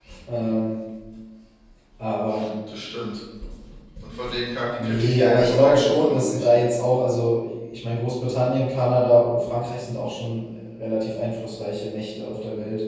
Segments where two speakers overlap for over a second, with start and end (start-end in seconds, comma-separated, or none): 4.8-6.5